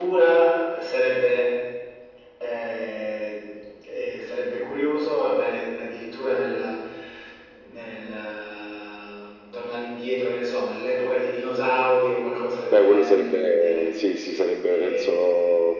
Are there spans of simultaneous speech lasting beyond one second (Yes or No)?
Yes